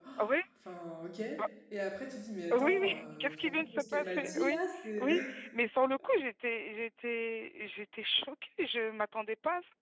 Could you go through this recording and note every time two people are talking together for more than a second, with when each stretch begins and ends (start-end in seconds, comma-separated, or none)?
2.5-4.6